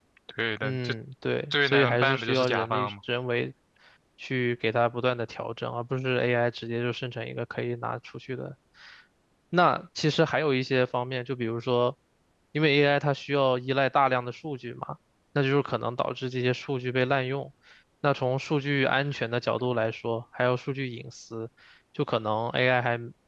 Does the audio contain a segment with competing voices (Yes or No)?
Yes